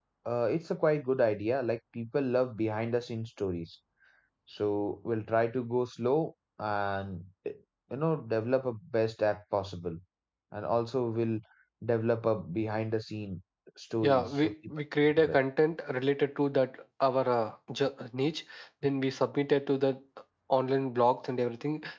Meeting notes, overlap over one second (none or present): present